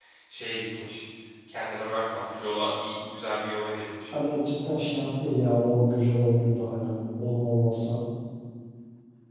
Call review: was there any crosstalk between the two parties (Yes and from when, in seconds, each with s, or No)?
No